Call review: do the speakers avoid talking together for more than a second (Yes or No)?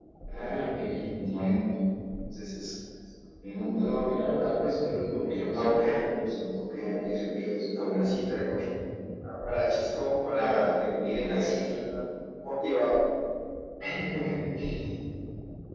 No